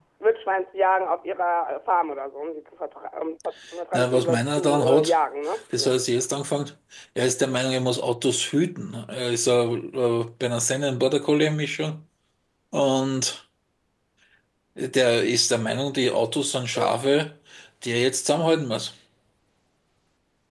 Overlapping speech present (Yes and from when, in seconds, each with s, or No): Yes, from 3.9 s